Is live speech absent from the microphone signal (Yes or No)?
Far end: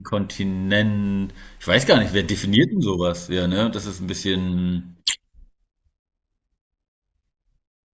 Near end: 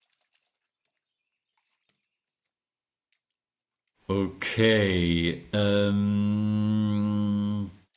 No